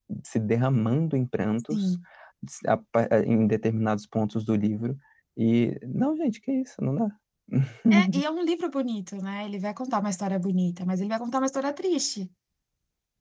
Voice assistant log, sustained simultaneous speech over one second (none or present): none